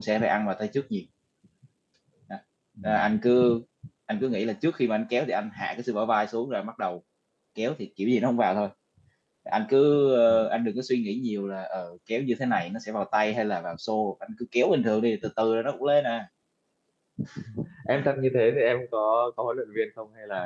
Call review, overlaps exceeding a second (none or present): none